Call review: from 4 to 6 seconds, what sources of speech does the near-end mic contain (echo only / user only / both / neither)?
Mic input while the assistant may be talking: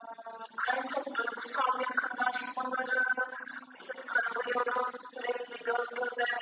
echo only